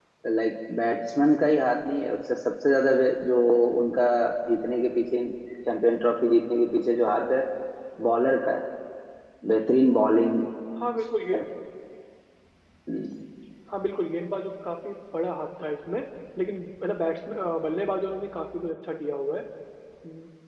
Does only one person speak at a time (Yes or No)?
Yes